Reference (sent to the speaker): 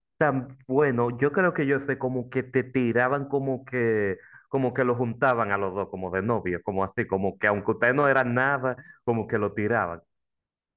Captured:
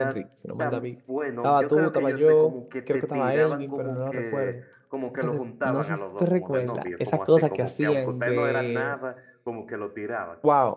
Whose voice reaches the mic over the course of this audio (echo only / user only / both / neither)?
both